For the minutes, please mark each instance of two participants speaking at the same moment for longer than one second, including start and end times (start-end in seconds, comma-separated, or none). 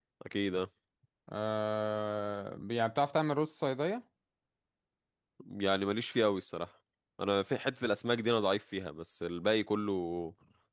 none